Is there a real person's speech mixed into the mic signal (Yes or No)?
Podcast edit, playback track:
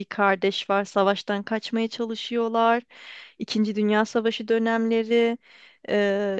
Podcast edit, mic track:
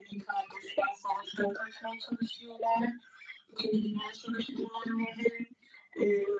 No